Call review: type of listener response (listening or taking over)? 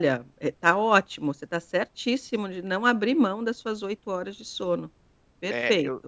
taking over